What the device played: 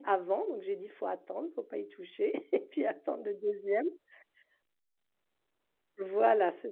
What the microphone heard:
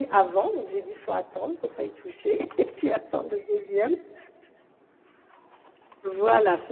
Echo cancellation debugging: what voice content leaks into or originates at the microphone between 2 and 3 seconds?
echo only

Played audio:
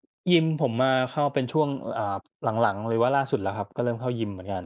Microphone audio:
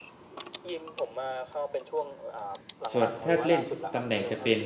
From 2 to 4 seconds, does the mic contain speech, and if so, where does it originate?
both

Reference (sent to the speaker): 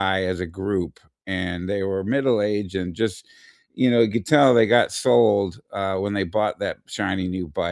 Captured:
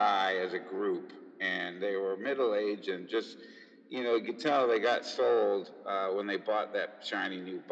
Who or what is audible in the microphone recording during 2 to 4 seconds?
echo only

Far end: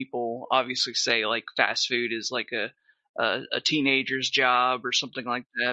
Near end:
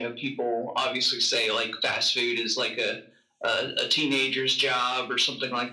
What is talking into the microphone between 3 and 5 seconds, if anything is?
echo only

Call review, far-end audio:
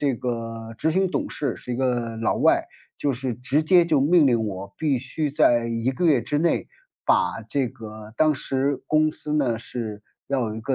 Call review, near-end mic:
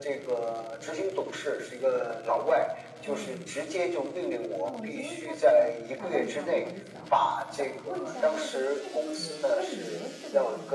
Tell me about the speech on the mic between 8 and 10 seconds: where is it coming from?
both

